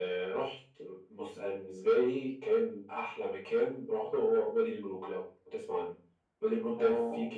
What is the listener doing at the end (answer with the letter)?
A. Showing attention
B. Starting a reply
A